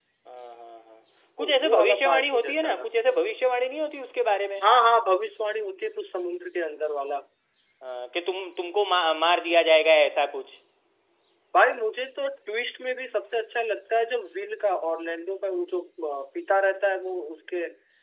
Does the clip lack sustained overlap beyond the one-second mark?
No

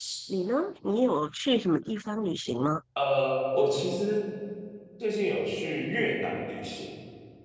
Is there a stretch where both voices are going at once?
No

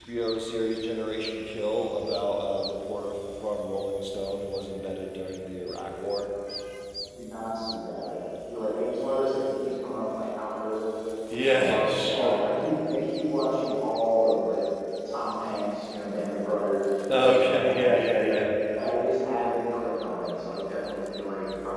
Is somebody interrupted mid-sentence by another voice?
Yes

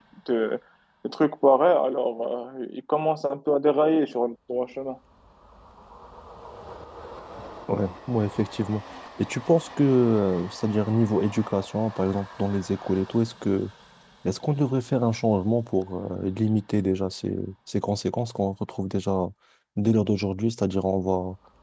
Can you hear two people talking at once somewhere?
No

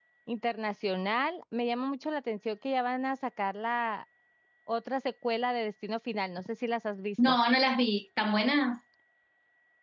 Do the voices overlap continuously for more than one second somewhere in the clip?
No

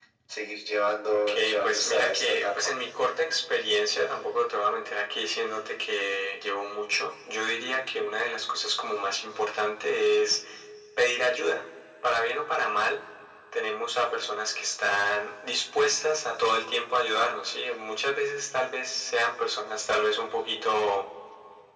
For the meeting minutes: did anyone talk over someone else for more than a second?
Yes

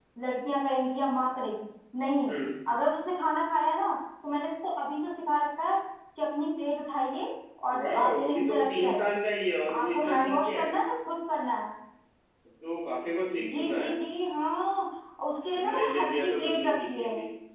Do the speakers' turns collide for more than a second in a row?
Yes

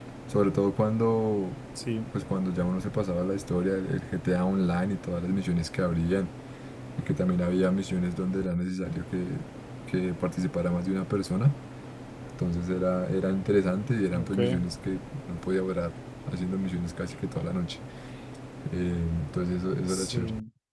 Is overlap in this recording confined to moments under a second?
Yes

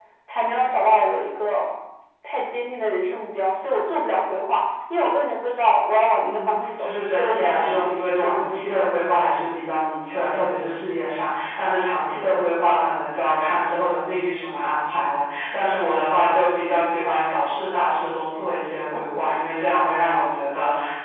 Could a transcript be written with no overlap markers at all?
No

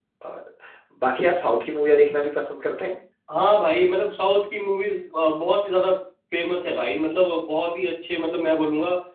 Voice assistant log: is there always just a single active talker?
Yes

